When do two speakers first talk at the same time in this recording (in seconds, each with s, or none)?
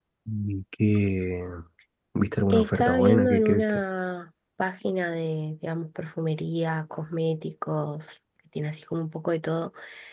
2.5 s